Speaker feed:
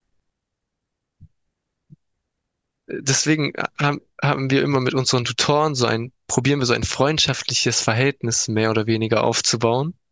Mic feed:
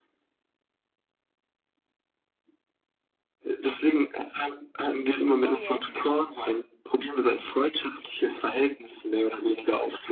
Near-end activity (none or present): present